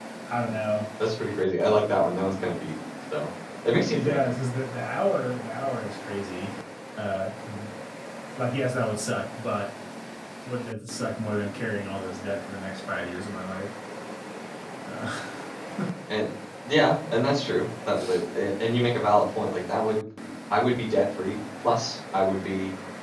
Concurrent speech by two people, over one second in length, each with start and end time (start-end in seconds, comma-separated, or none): none